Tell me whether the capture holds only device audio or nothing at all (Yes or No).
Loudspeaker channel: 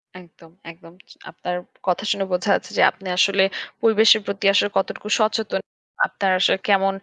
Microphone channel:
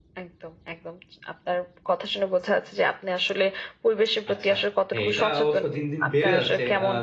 No